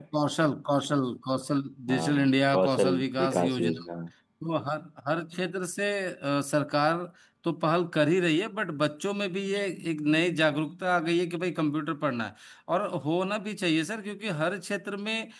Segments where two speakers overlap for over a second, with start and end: 1.9-3.8

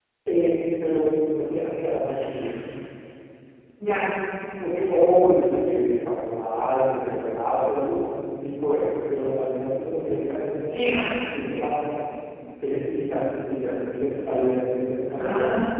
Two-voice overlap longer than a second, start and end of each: none

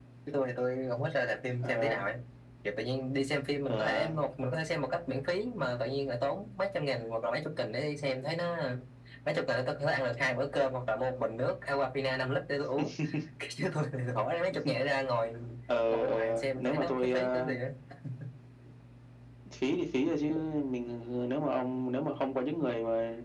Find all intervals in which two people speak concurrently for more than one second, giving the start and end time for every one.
15.9-17.5

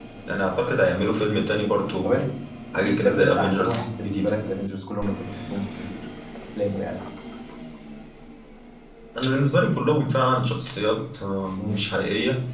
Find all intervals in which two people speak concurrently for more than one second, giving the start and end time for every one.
2.8-4.3

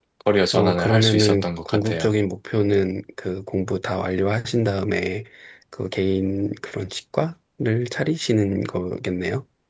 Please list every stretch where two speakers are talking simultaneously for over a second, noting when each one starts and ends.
0.5-2.1

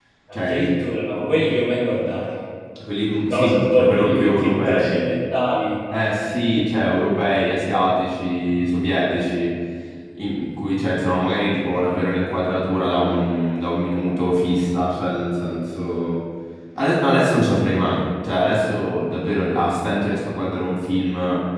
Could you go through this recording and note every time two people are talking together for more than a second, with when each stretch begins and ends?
3.3-5.0

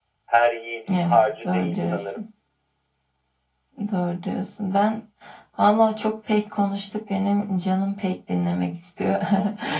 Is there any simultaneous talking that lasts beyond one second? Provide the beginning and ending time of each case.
0.9-2.2

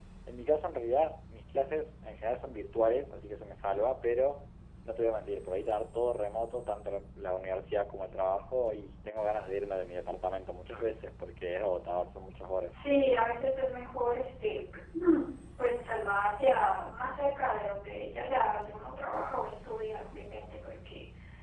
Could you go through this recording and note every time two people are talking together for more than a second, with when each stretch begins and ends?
none

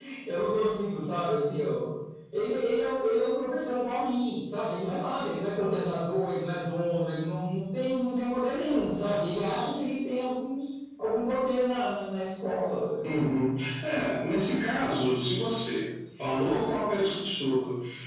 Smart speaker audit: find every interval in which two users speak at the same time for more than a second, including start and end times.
none

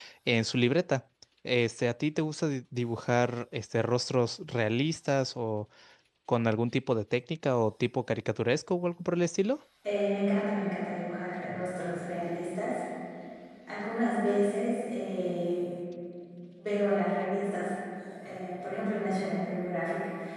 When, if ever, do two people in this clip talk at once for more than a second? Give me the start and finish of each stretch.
none

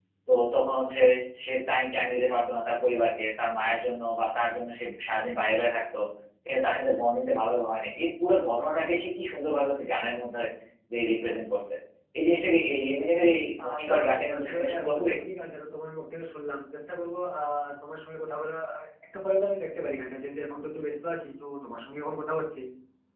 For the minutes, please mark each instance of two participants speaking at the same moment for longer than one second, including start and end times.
13.7-15.1

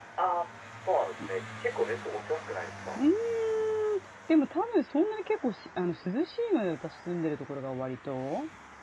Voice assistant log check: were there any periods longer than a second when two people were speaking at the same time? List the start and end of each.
none

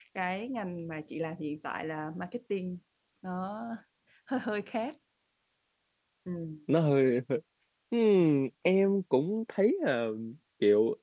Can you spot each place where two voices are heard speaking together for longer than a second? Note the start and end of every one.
none

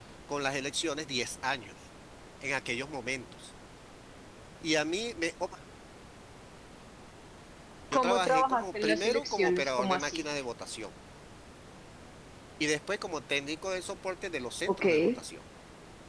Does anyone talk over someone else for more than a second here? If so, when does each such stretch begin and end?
7.9-10.2

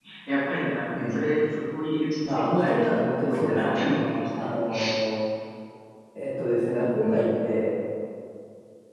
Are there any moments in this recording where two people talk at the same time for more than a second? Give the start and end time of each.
2.2-3.8

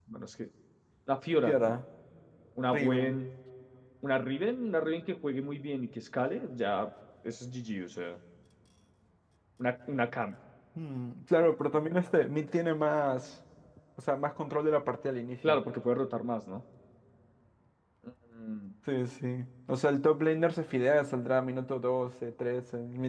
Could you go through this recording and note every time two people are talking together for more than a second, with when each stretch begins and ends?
none

